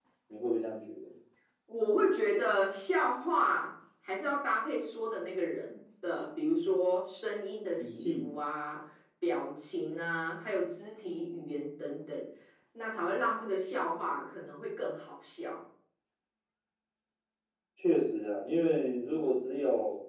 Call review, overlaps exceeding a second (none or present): none